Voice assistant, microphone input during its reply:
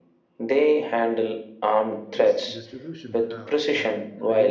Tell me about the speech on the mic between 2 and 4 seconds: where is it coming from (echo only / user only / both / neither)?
both